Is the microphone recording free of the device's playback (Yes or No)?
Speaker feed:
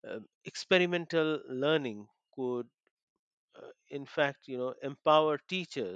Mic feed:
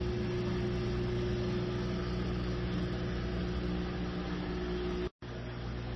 Yes